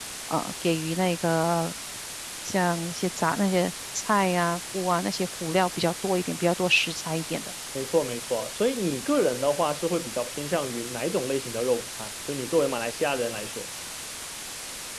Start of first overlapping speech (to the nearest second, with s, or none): none